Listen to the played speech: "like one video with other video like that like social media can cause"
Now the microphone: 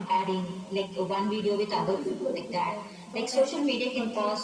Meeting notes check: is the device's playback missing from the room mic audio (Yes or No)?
No